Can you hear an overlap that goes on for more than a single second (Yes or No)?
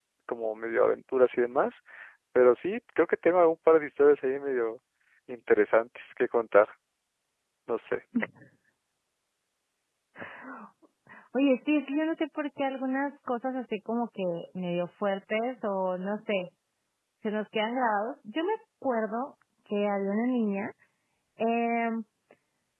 No